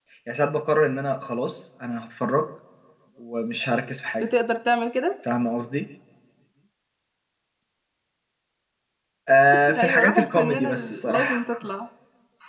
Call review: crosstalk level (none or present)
present